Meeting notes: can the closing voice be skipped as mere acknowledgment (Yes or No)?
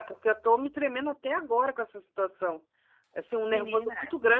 Yes